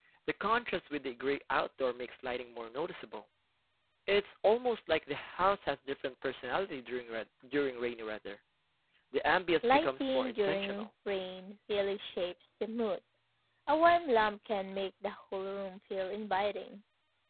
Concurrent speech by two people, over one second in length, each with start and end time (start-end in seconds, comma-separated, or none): 9.6-10.9